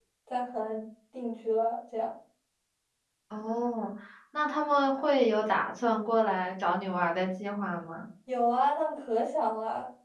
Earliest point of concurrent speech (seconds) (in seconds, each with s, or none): none